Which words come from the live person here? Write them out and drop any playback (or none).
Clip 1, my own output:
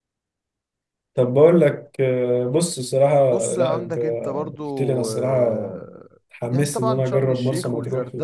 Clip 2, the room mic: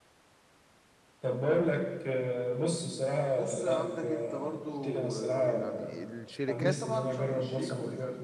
يعني الشركات